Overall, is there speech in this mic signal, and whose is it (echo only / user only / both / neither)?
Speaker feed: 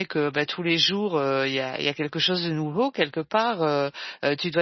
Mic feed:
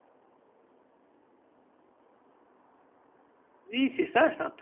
user only